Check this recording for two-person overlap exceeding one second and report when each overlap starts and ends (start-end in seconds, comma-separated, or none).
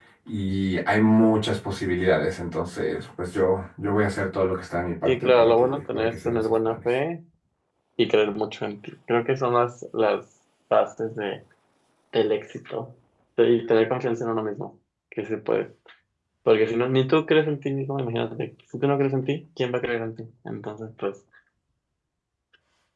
5.0-6.8